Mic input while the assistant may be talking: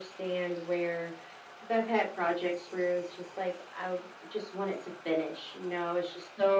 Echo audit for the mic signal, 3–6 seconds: echo only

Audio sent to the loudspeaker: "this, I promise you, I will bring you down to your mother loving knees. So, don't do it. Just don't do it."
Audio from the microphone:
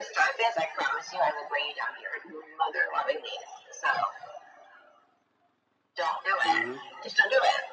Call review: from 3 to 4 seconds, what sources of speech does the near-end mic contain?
echo only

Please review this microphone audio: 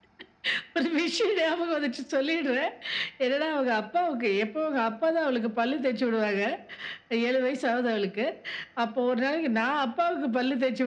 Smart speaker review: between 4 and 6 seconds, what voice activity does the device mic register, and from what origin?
echo only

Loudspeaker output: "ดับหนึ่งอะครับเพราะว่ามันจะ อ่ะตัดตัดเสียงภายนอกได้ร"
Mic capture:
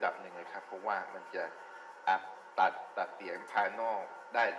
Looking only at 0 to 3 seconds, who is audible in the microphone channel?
echo only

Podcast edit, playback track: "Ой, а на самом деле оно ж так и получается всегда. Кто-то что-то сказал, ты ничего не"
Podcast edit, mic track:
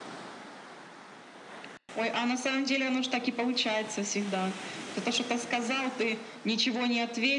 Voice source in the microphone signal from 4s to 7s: echo only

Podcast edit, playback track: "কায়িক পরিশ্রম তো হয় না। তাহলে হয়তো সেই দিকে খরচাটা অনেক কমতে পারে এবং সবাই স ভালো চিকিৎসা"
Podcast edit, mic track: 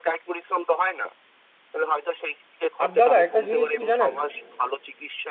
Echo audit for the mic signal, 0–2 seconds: echo only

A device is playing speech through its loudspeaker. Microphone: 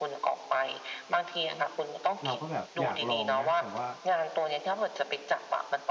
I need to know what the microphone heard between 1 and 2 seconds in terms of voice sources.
echo only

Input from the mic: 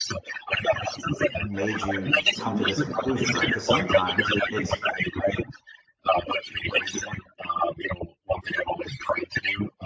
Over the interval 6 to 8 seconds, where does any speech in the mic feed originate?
echo only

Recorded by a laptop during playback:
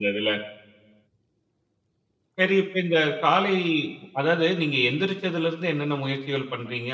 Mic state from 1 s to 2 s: neither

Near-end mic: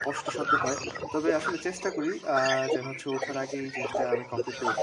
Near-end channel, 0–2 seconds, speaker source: both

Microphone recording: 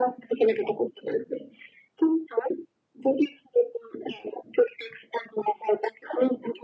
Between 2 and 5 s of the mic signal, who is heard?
echo only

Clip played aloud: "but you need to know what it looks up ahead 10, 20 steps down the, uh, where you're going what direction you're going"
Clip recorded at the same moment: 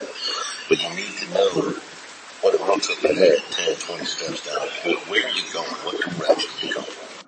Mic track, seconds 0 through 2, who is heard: echo only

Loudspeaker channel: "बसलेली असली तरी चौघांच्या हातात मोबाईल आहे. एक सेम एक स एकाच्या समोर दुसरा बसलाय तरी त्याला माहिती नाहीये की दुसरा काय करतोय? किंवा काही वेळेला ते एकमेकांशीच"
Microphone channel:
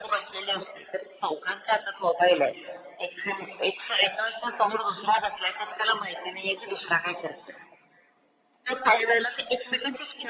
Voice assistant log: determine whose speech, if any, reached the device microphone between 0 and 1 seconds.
echo only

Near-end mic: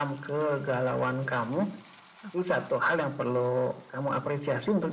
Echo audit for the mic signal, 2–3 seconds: both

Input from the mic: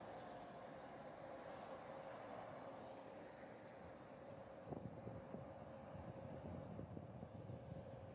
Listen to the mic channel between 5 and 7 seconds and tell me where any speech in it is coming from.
neither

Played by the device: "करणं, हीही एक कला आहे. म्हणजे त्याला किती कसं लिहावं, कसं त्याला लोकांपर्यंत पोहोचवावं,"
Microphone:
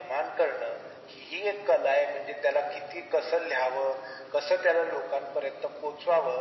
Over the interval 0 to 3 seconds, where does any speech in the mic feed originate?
echo only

